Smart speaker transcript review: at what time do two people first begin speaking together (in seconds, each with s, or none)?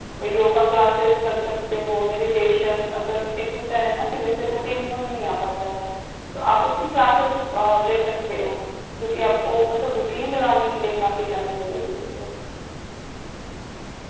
none